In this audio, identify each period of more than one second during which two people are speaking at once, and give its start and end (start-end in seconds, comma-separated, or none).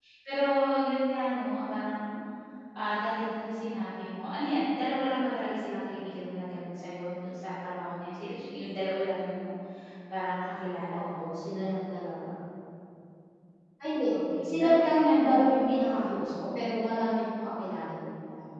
14.5-16.2